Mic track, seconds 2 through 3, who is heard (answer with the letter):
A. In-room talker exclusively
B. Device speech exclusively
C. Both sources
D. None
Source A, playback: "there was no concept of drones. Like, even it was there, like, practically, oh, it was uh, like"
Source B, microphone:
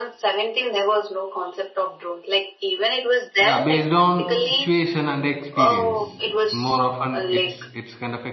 B